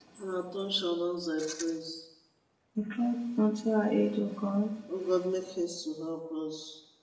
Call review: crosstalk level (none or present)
none